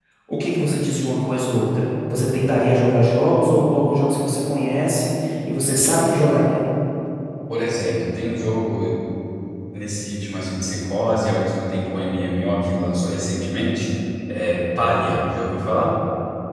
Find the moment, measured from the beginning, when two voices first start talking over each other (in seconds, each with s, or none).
none